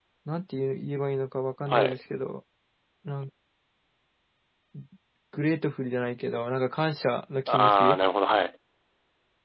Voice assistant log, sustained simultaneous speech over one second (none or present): none